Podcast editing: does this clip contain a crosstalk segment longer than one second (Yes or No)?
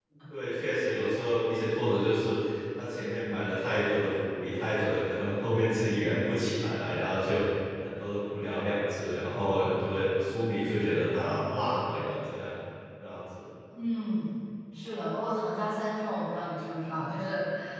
No